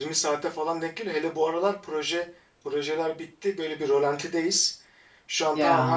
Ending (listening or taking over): listening